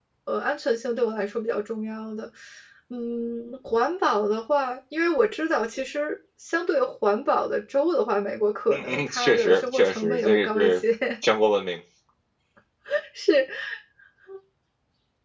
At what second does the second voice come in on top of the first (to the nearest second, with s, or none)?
9 s